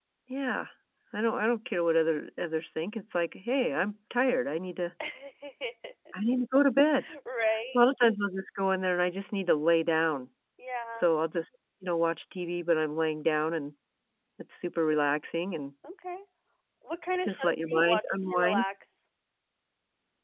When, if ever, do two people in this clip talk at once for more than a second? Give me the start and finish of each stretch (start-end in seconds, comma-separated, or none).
17.2-18.6